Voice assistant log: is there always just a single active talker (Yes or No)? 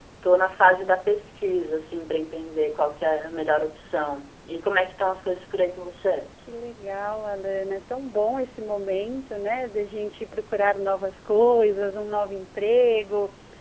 Yes